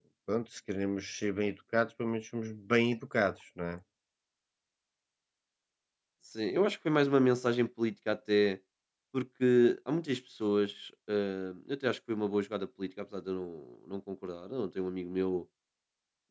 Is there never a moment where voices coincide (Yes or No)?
Yes